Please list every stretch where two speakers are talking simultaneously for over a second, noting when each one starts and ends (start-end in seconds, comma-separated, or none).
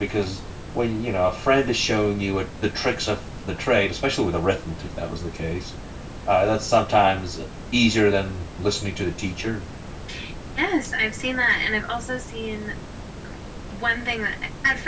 none